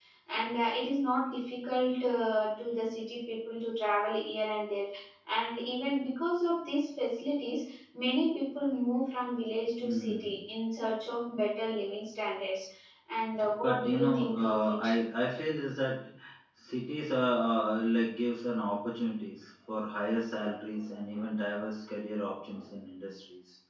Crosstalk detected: Yes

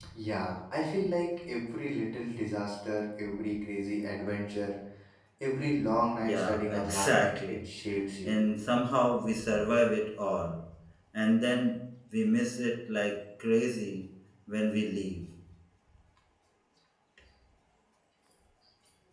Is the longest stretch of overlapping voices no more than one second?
No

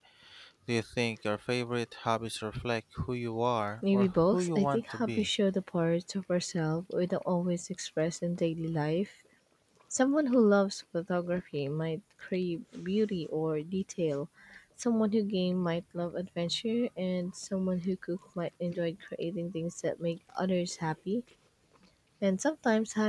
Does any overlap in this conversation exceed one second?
Yes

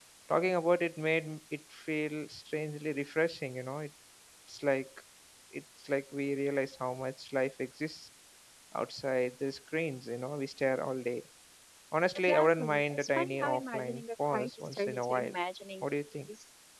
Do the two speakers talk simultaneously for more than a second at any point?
Yes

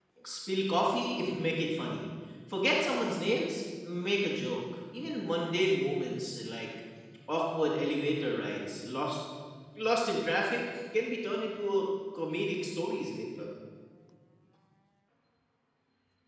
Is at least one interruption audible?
No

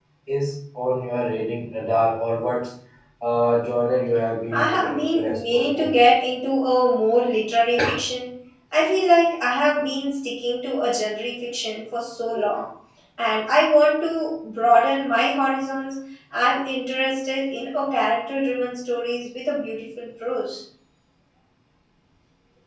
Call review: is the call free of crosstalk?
No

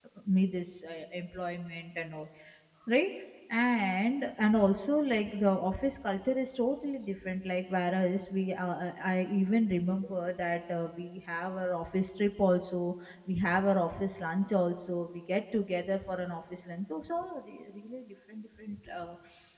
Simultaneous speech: No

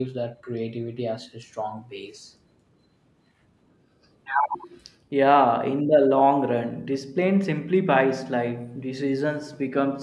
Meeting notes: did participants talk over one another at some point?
No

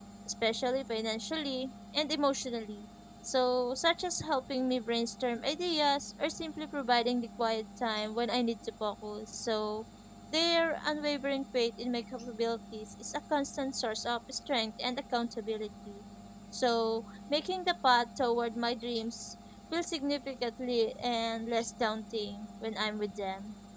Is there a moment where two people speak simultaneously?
No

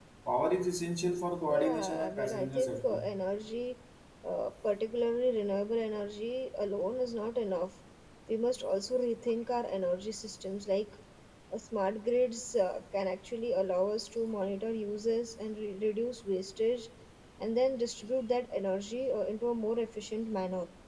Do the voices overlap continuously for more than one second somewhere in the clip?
Yes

